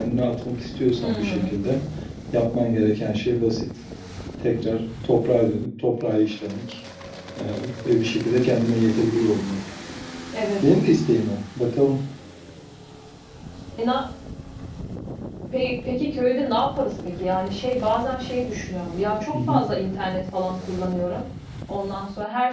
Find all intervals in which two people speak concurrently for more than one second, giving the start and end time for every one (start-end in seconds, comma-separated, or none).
none